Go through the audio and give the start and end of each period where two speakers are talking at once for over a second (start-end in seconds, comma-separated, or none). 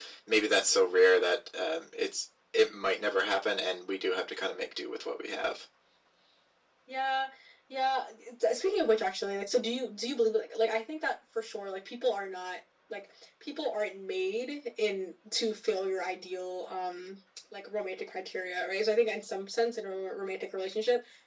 none